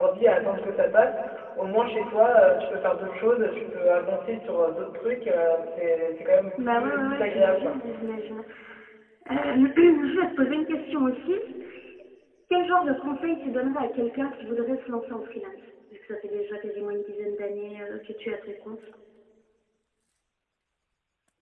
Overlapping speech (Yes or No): Yes